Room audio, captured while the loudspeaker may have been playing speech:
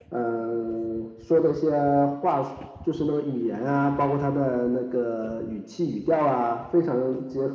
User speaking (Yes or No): No